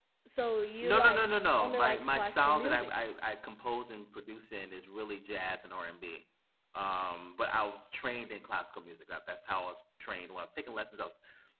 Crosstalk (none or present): present